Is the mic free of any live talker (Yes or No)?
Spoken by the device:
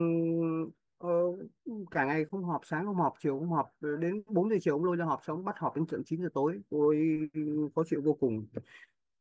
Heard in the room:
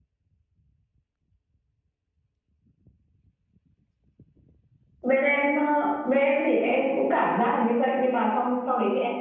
No